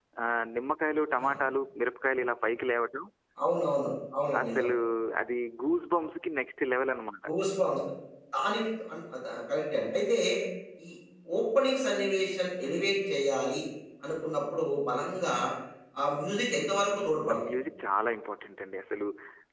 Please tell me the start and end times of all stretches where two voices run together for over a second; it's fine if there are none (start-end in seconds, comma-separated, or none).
none